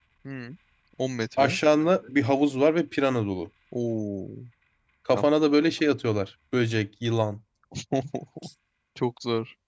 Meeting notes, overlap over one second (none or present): none